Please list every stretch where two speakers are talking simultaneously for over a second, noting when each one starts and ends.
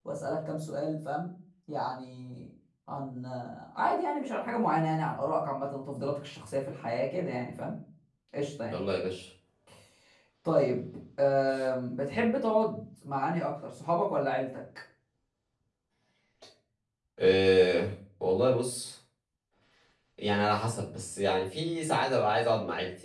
none

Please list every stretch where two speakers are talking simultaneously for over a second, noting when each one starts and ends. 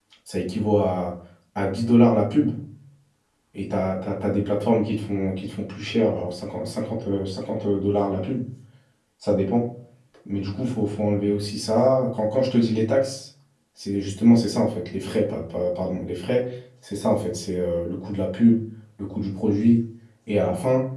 none

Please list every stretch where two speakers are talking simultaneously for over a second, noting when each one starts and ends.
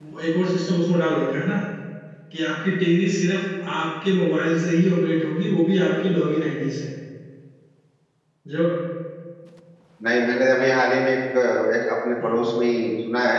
none

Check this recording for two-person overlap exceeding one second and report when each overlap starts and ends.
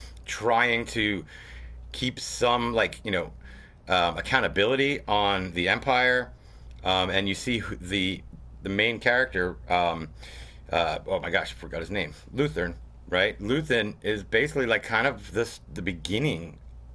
none

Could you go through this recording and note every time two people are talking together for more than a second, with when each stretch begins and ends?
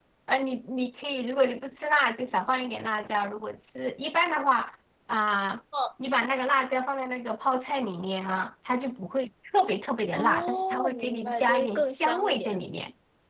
10.2-12.6

